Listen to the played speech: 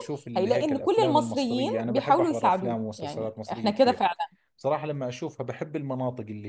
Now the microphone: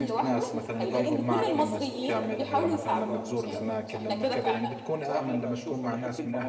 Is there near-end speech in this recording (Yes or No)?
Yes